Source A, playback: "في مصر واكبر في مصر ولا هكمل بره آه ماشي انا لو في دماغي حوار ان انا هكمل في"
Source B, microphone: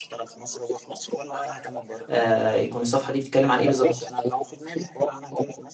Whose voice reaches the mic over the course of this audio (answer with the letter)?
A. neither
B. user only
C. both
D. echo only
C